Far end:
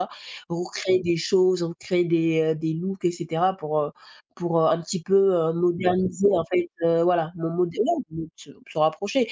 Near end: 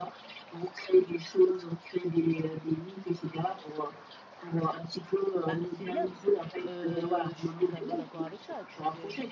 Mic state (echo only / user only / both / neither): both